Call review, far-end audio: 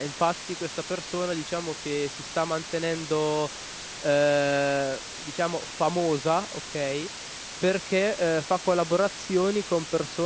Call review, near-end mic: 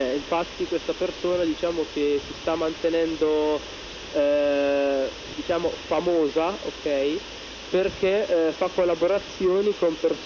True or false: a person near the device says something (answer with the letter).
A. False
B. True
A